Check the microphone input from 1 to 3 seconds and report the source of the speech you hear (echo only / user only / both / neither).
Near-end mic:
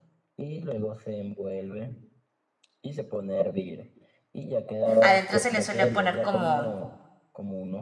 echo only